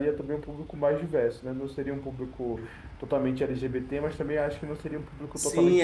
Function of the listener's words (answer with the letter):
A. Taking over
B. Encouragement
A